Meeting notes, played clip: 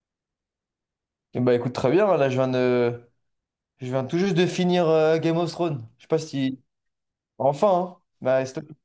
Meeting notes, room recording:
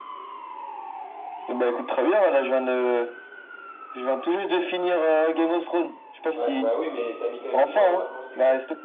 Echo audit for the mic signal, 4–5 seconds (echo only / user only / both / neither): echo only